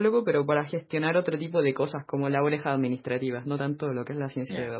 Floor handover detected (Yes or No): Yes